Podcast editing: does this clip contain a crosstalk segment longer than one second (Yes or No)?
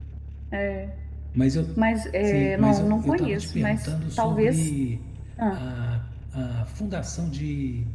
Yes